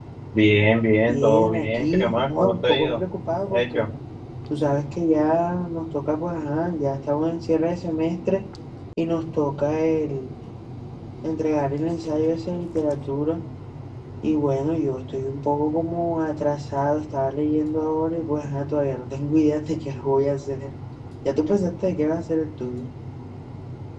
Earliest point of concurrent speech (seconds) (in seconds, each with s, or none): 1.1 s